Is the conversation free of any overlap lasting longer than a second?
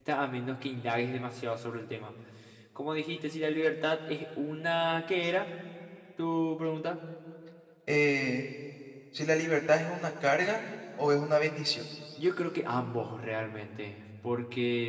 Yes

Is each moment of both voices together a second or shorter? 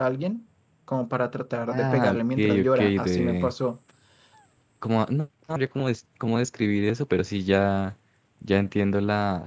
No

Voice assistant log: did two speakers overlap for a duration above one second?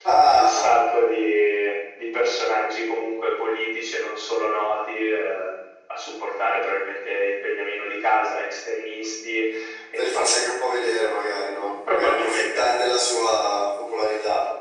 Yes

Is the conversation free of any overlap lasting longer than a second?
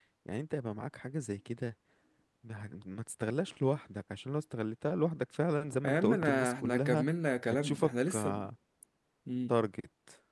No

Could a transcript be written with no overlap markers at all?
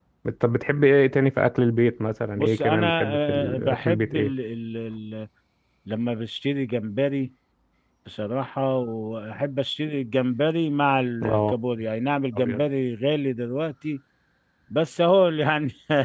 No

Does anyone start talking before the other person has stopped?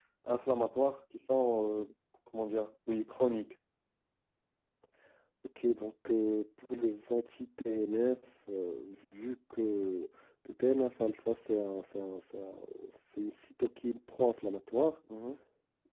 No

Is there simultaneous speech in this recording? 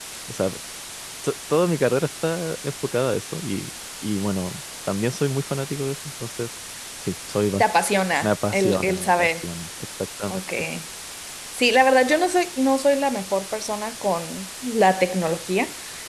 Yes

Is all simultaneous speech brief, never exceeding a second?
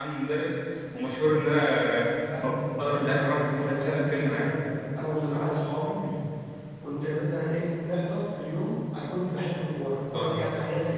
No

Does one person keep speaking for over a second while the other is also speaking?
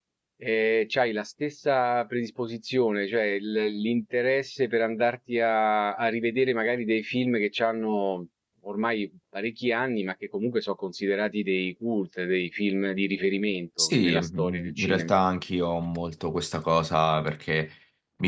Yes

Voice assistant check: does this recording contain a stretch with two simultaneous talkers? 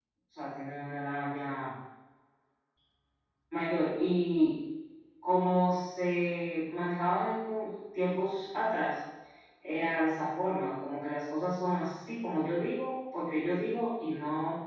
No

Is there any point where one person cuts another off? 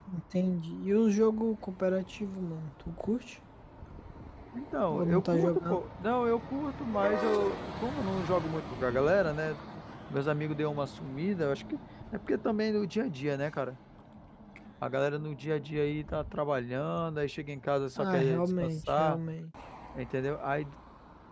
Yes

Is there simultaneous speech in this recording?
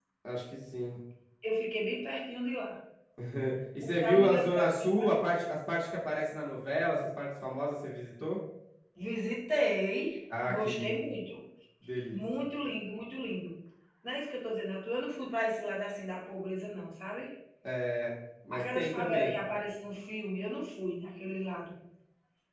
Yes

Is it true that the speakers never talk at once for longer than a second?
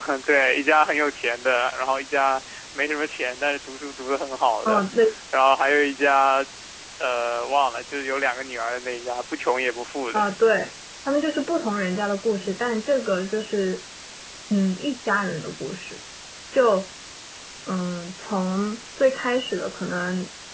Yes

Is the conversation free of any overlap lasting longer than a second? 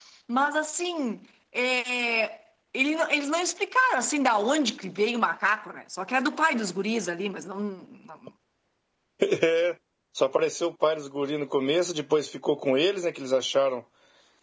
Yes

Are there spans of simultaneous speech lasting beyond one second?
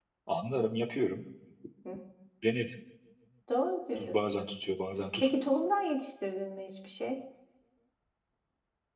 No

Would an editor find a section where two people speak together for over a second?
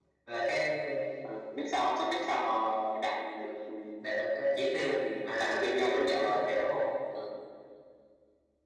Yes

